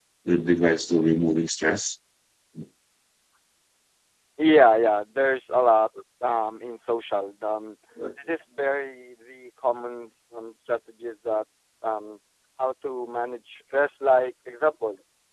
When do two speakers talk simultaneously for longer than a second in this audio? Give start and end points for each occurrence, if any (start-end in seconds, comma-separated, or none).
none